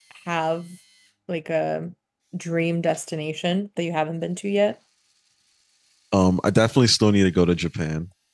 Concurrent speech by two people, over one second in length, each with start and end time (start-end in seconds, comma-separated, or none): none